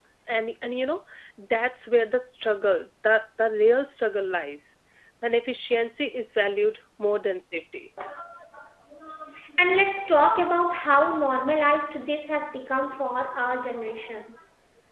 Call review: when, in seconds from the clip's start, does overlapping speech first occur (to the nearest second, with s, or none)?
none